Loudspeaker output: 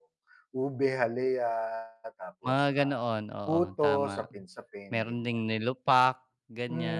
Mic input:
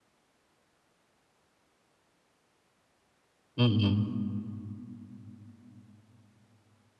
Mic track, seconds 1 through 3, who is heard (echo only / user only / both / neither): neither